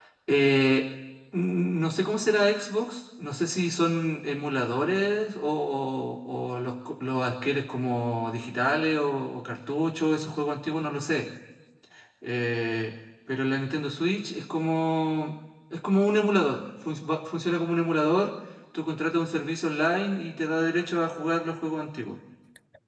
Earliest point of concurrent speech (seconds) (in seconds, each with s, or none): none